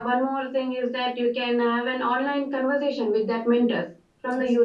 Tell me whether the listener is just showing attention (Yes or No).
Yes